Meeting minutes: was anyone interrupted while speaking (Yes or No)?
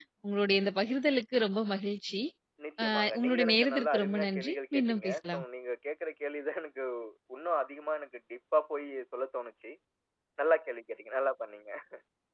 Yes